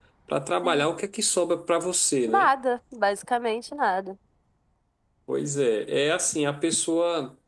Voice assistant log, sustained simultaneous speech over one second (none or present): none